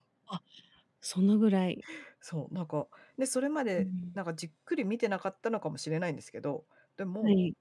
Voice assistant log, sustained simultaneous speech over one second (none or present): none